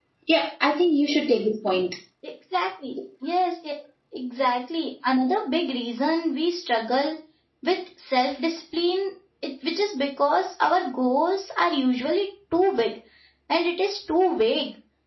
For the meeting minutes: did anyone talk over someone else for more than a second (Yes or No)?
No